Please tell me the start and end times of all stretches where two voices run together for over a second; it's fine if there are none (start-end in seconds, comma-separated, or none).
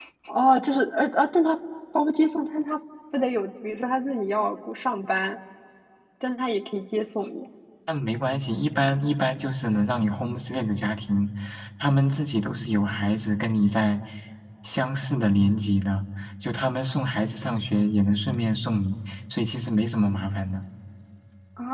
none